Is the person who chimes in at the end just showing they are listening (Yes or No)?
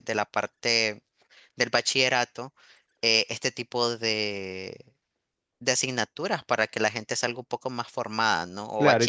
No